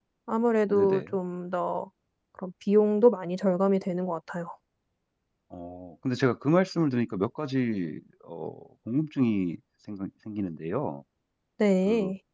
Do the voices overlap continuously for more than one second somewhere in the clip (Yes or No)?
No